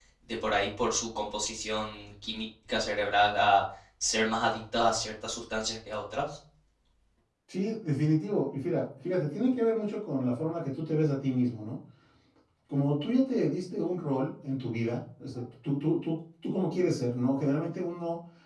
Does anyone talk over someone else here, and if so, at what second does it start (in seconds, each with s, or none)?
none